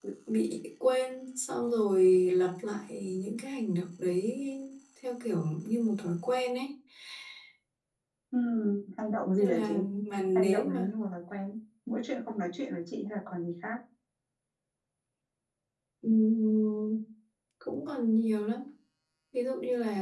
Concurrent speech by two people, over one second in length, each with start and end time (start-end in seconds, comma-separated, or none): none